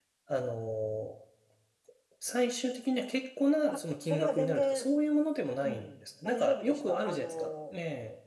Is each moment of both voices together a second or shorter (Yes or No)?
No